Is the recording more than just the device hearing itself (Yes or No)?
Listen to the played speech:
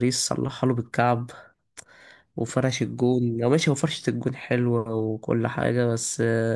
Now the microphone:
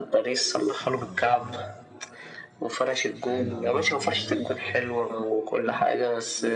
Yes